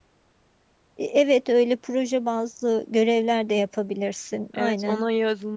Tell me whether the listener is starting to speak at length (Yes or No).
Yes